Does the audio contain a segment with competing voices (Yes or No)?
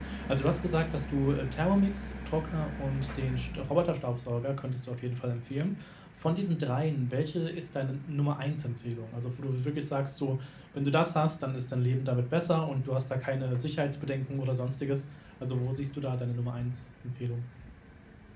No